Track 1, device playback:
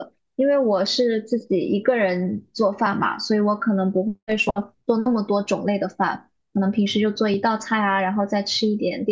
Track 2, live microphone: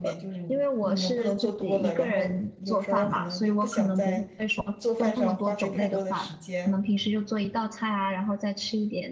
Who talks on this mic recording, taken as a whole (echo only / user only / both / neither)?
both